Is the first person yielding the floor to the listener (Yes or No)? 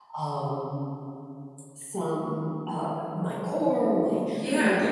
No